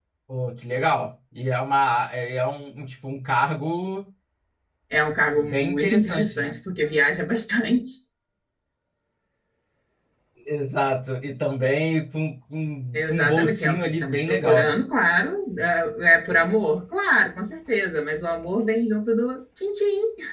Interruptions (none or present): present